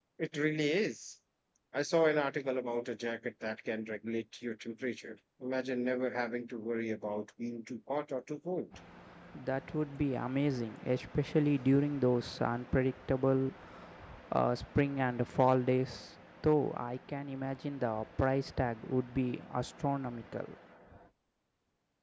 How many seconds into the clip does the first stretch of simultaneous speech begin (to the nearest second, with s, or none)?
none